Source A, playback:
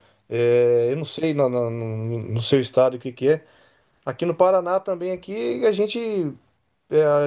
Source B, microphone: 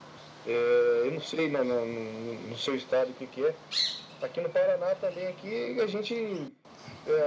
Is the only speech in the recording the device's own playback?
Yes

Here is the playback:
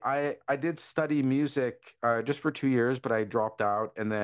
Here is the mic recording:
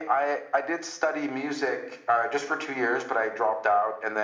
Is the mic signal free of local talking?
Yes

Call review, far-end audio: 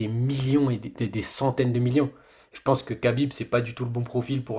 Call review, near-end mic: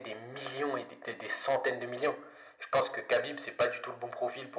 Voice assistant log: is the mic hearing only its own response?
Yes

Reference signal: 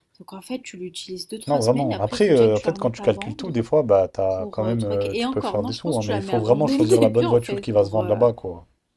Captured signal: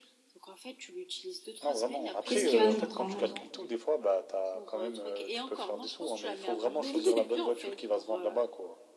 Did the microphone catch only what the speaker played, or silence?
No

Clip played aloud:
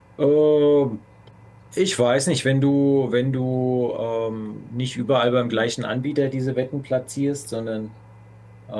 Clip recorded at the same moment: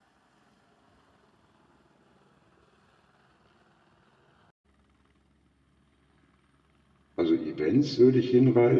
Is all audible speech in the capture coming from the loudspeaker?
No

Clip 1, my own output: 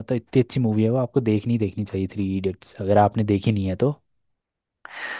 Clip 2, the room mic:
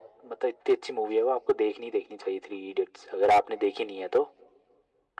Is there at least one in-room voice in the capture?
No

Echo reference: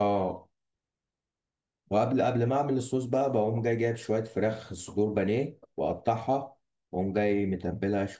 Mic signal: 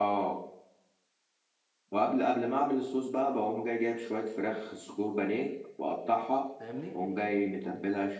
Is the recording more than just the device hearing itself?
Yes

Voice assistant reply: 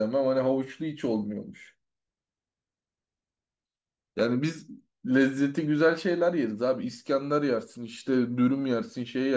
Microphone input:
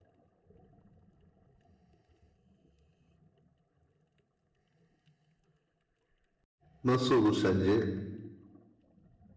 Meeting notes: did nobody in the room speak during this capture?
No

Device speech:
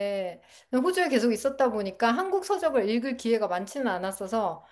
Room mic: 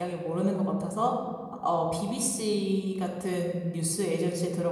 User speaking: Yes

